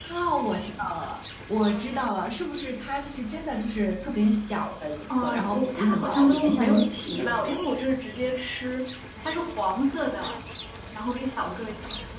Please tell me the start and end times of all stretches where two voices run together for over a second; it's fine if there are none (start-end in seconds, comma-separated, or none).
5.2-7.6